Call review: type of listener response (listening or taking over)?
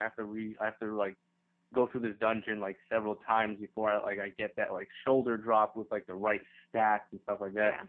listening